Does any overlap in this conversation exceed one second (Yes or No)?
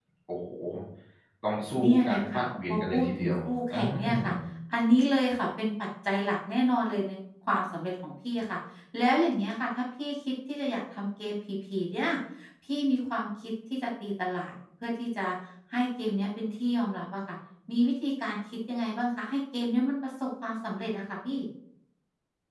Yes